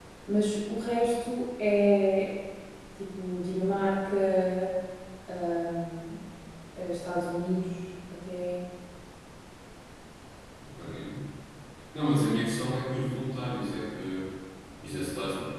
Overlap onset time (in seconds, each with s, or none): none